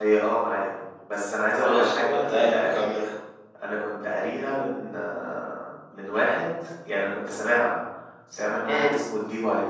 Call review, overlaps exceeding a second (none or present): present